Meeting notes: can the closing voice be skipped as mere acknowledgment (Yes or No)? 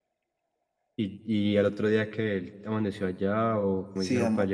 No